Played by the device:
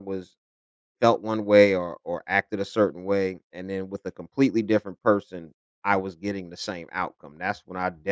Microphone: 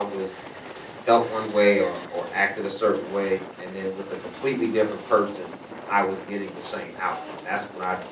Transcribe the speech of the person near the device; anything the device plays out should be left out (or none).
none